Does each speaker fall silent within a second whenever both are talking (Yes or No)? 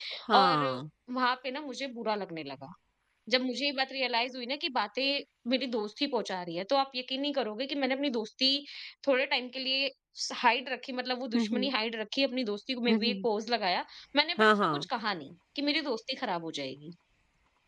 Yes